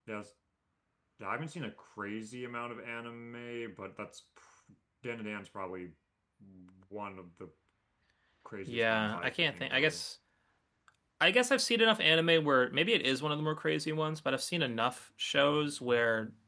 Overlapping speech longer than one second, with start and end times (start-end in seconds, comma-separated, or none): 8.7-10.0